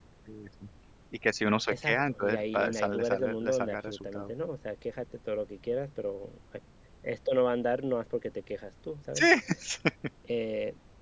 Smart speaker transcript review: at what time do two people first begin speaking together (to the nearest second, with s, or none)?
2 s